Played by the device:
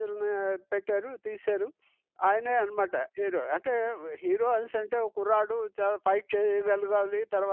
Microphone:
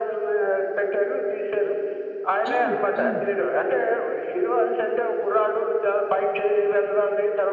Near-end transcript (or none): అవును. అవును.